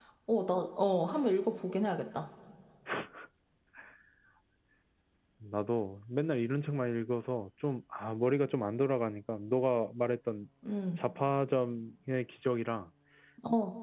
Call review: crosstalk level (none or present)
none